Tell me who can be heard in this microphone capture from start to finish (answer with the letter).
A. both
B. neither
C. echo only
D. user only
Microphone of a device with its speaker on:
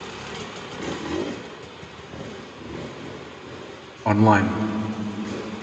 D